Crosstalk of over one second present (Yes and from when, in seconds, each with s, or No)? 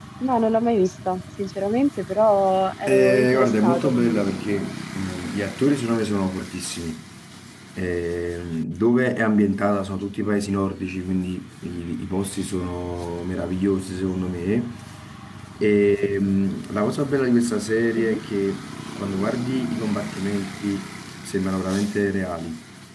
Yes, from 2.9 s